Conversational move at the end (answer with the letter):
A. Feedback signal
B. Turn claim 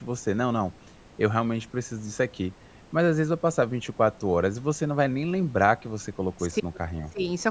B